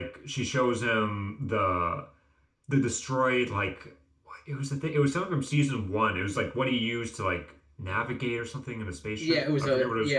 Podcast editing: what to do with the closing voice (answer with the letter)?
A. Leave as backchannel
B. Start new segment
B